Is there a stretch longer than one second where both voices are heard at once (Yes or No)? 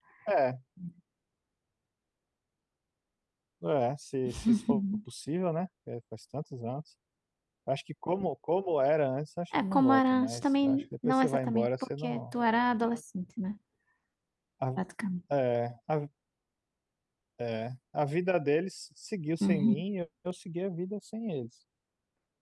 Yes